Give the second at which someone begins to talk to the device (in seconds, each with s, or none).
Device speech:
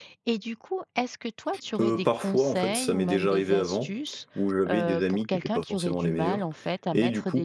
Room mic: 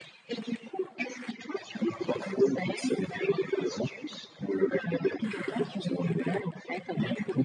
none